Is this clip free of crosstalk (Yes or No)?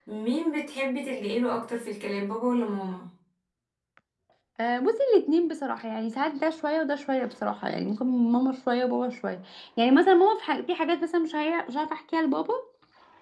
Yes